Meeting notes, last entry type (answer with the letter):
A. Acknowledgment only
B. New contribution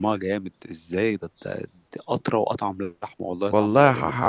B